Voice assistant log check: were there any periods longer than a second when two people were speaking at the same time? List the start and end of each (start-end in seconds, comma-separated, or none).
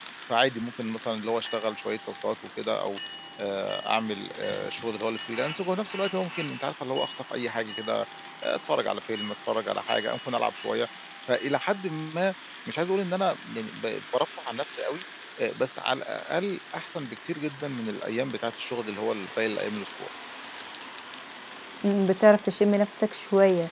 none